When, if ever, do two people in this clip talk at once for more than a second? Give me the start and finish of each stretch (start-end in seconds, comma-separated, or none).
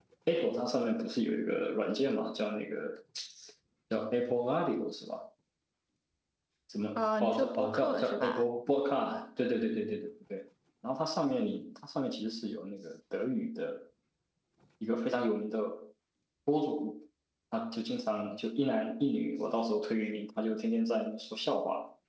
7.0-8.5